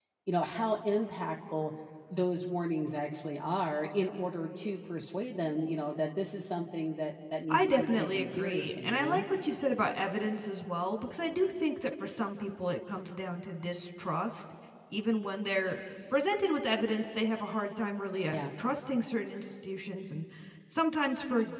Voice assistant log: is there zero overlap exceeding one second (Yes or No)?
No